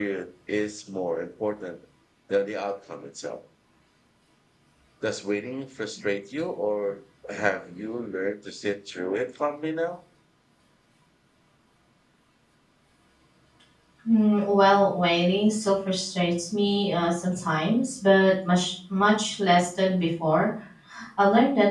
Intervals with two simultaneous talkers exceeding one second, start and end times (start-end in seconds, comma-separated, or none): none